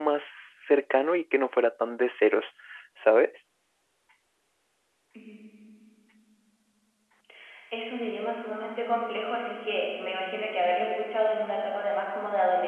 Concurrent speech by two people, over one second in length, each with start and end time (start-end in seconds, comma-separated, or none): none